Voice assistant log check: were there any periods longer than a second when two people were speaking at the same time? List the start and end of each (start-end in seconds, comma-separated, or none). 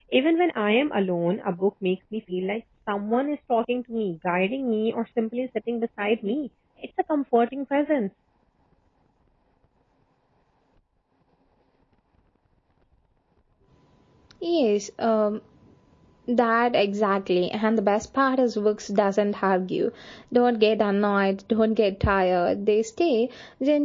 none